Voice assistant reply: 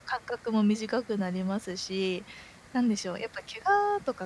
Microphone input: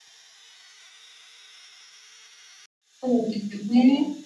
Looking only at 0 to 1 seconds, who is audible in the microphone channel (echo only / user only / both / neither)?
neither